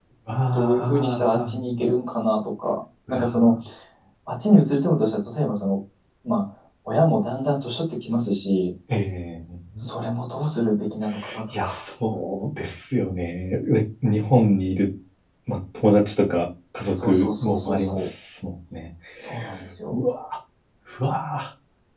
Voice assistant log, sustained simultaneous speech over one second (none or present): present